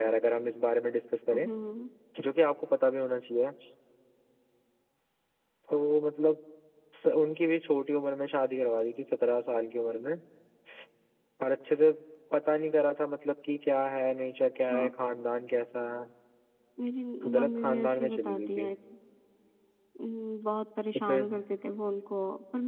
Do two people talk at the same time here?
Yes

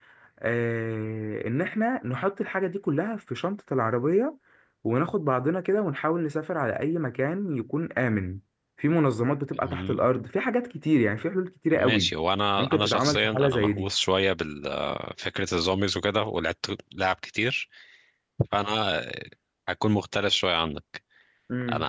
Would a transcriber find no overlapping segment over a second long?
No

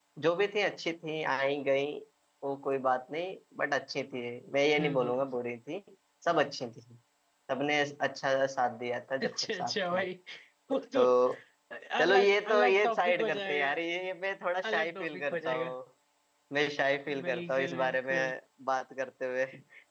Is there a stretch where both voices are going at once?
Yes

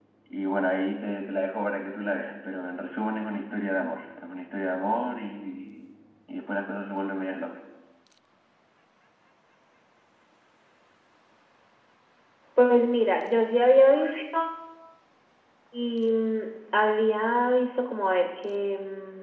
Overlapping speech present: No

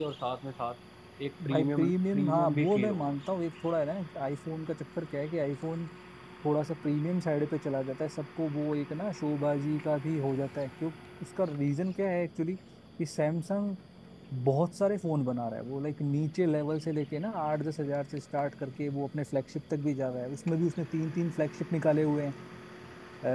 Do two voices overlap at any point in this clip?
Yes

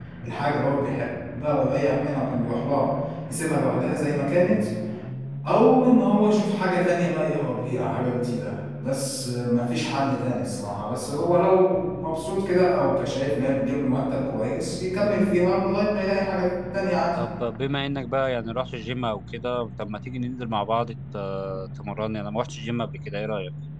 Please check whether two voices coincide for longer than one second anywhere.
No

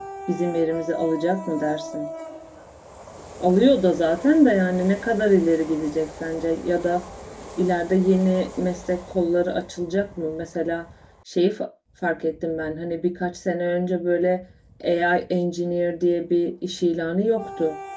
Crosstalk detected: No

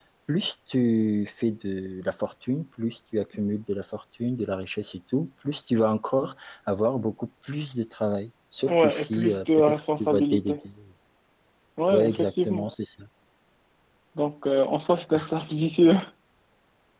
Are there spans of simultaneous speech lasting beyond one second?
Yes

